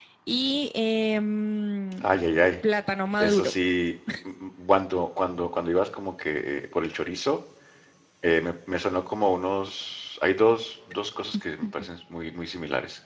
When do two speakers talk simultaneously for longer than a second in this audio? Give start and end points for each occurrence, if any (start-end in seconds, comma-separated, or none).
none